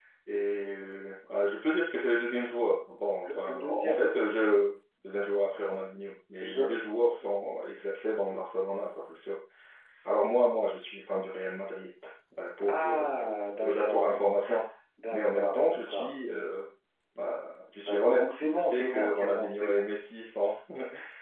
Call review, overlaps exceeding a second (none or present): present